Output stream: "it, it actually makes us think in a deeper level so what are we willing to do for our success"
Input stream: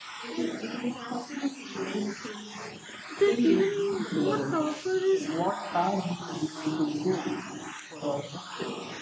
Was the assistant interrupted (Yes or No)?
Yes